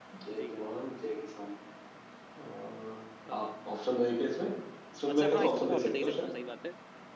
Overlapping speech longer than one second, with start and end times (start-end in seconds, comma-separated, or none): 5.1-6.3